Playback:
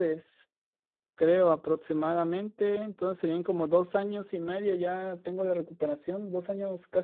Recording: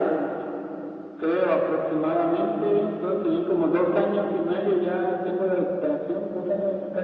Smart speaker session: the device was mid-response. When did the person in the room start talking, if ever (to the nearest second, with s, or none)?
none